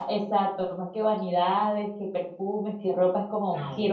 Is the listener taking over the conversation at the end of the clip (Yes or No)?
No